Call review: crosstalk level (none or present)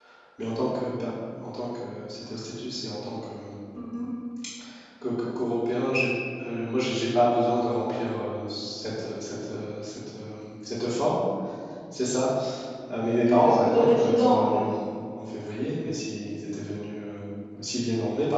present